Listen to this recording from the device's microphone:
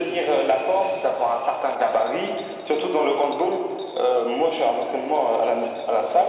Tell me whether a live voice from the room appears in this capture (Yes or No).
No